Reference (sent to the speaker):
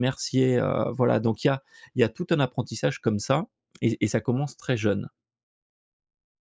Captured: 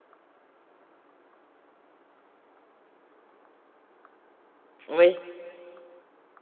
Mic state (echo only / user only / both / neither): user only